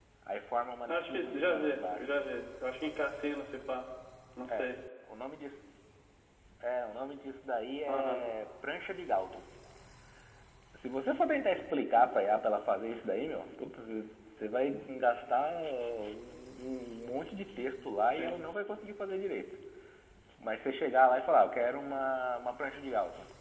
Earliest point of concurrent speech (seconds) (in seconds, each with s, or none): 0.9 s